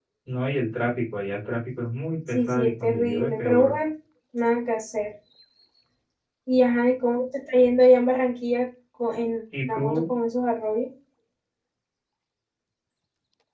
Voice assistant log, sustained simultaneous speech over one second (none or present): present